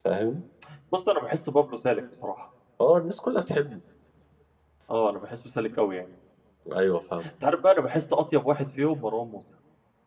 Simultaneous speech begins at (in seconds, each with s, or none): none